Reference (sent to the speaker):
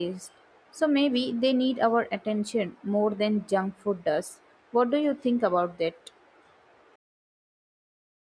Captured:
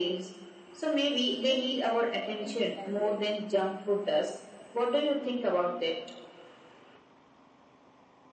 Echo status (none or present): present